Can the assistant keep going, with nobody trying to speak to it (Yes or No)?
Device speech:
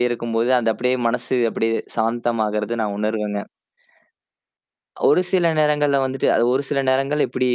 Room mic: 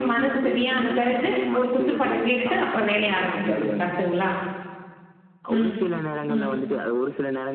No